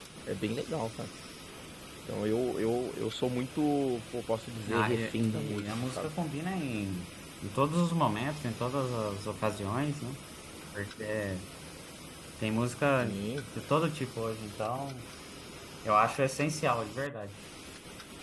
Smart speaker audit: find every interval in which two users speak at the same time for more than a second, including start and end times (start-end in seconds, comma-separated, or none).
4.7-6.1